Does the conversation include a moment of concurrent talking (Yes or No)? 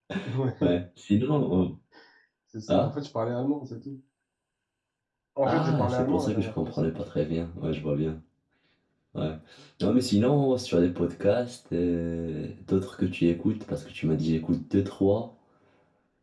Yes